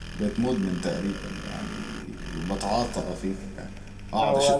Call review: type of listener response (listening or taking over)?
listening